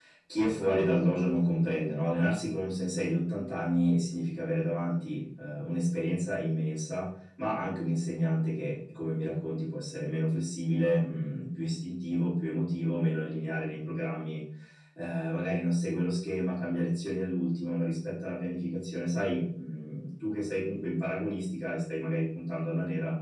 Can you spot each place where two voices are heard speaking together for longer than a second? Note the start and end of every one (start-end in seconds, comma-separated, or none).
none